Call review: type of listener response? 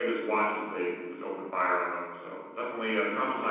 listening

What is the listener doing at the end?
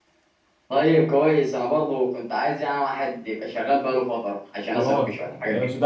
taking over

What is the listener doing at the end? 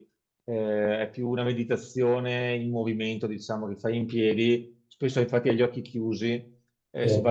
listening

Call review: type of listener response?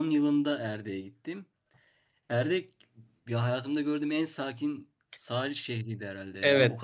listening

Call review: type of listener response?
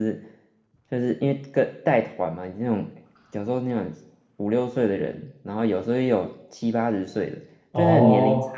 listening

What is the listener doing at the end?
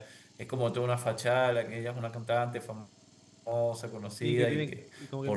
taking over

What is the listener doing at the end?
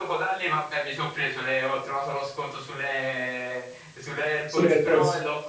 listening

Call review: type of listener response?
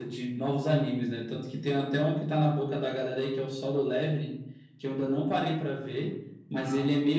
listening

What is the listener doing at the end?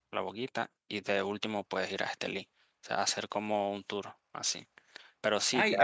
taking over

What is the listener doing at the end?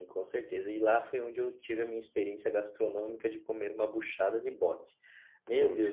listening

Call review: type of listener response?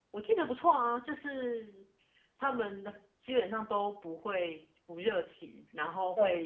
listening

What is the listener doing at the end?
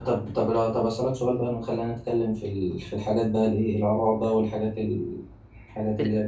listening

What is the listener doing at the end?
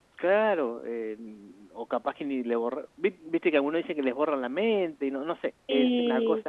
listening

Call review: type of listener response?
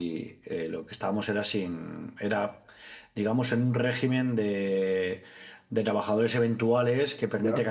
listening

